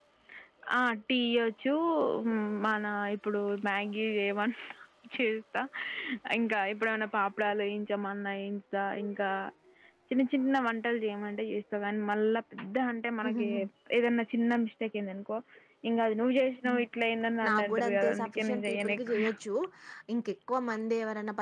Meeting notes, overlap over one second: present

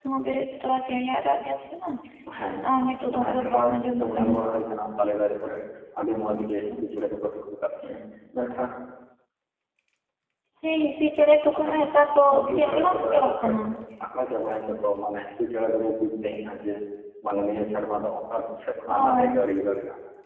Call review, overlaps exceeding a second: present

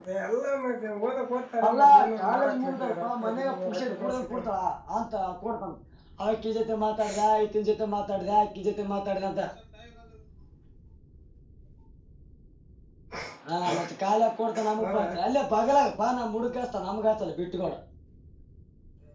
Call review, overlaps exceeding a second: present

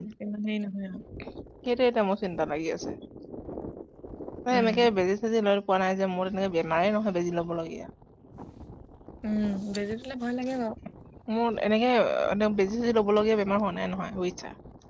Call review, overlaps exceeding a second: none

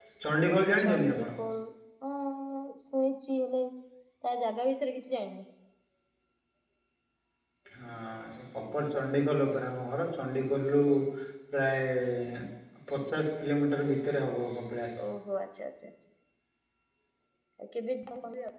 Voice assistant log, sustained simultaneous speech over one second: none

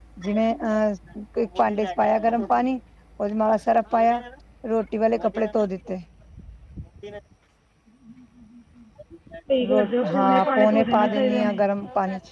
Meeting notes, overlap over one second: present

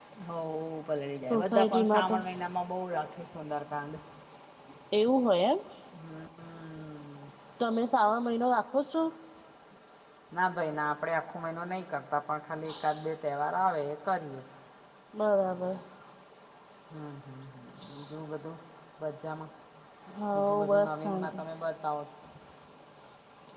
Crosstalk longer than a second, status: present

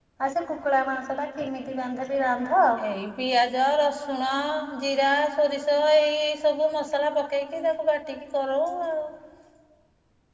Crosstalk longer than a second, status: none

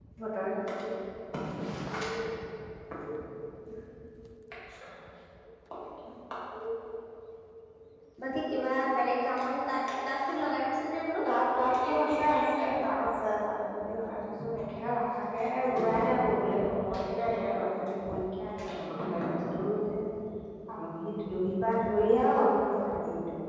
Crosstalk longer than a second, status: none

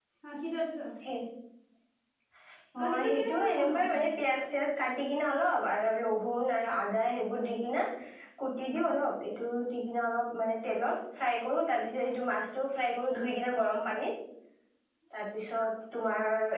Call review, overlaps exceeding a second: present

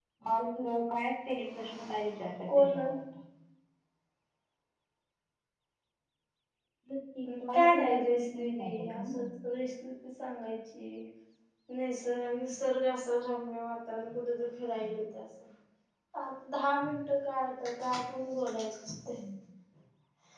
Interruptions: present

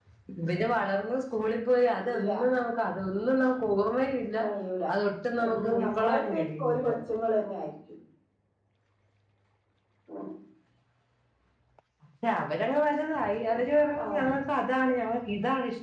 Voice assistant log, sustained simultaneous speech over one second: present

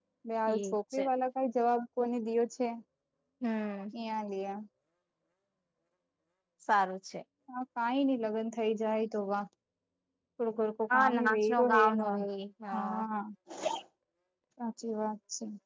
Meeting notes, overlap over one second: present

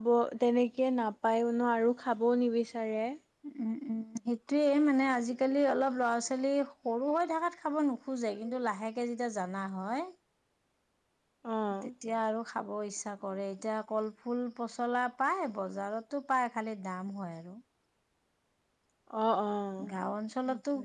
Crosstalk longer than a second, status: none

